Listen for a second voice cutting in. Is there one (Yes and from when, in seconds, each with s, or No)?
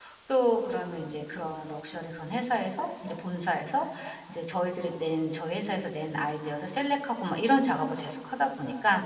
No